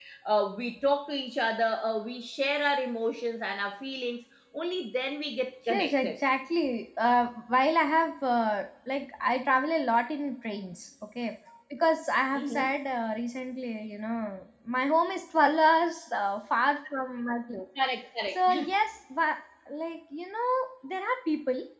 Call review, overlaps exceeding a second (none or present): none